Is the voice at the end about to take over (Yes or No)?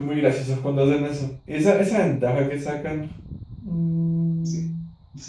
Yes